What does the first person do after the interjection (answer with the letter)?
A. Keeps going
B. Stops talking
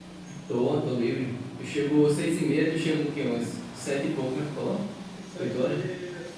B